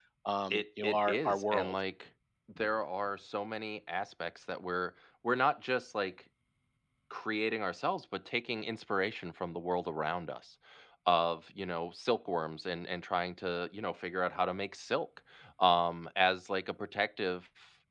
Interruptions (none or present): present